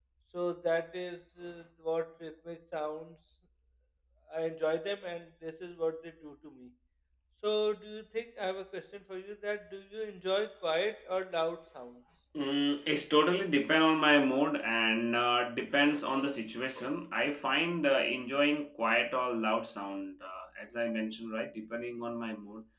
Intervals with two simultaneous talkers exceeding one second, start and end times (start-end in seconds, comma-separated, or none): none